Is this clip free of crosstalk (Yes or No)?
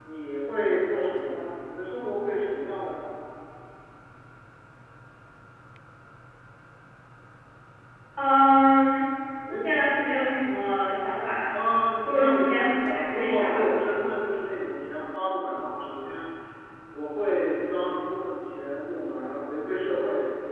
No